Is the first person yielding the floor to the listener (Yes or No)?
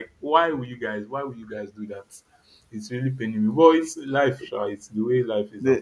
Yes